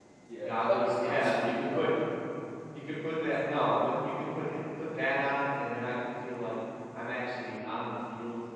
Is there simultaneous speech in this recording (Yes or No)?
Yes